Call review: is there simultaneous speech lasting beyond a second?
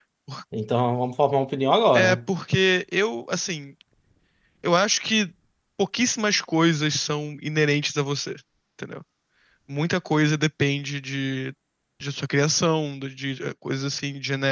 No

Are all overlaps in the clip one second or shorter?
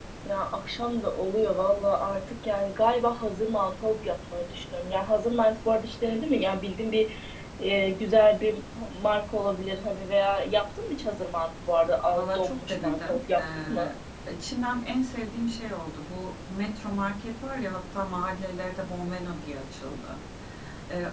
No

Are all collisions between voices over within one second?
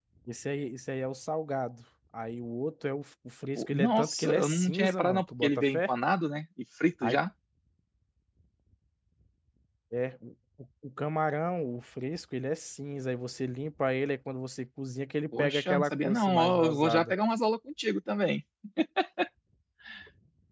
No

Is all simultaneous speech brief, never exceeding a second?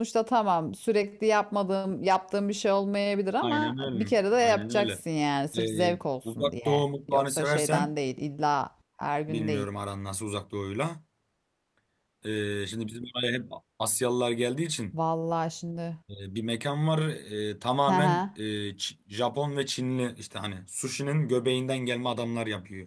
No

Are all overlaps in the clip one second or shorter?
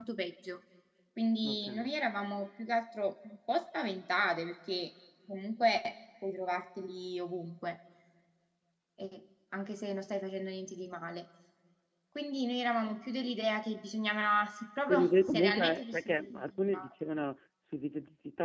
No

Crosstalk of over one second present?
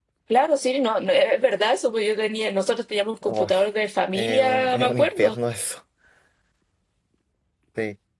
Yes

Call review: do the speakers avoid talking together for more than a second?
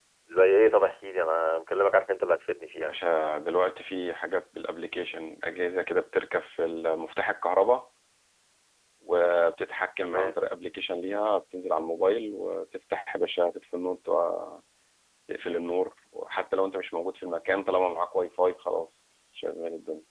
Yes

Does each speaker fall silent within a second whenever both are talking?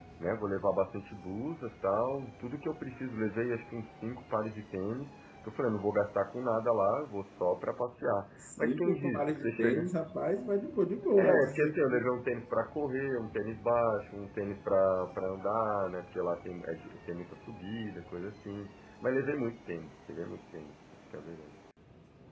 No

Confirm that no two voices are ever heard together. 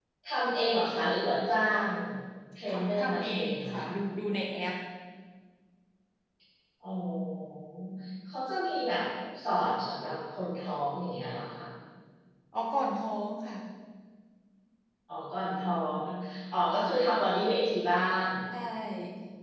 No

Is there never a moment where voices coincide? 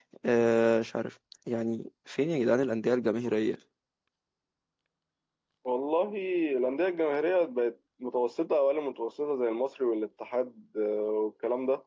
Yes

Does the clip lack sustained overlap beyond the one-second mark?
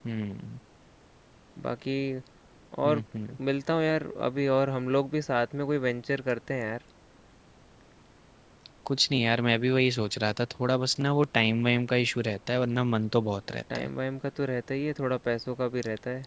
Yes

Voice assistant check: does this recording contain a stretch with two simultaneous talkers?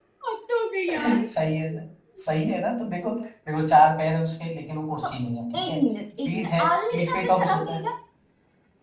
Yes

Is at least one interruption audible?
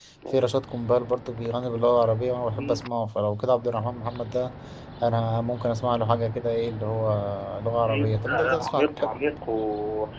Yes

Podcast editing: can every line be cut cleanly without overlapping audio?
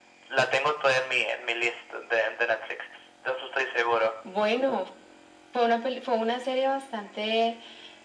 Yes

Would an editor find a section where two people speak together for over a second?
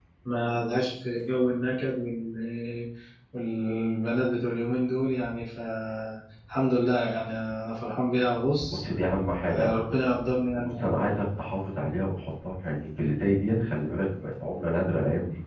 No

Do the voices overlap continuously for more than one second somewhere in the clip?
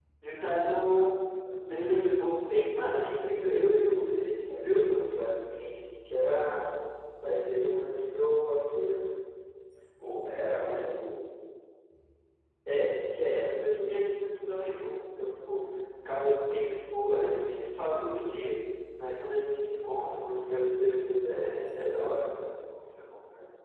No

